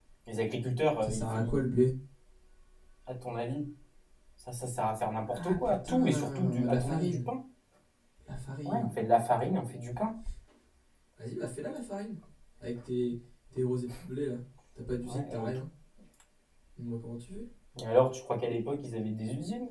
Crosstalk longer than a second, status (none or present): present